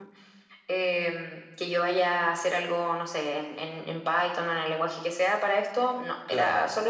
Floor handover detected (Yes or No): No